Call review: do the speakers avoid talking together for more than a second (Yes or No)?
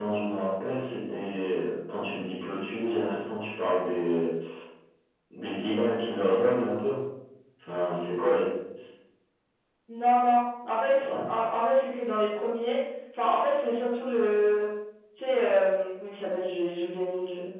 Yes